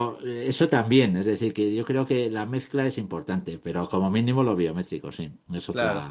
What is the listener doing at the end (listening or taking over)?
taking over